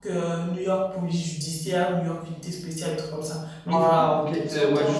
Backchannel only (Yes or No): No